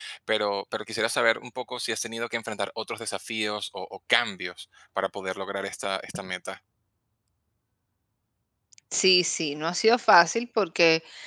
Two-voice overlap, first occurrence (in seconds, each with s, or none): none